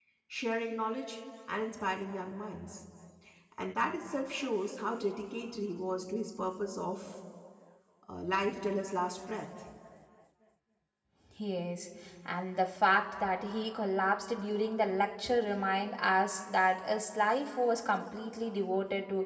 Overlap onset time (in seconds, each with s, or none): none